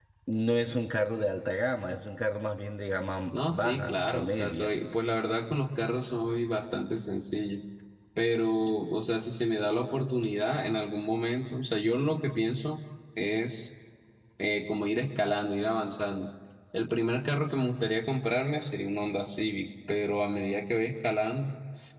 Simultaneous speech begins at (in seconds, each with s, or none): 3.3 s